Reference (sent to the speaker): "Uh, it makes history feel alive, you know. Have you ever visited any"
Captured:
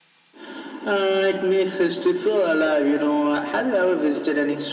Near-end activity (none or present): none